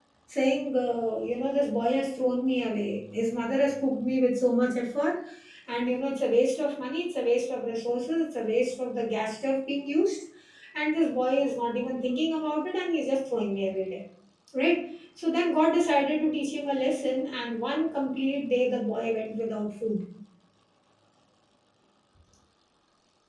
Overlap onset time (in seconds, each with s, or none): none